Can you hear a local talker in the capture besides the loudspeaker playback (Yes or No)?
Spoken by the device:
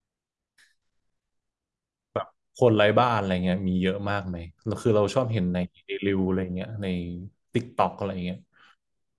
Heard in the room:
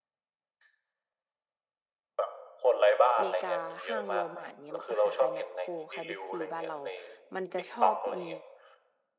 Yes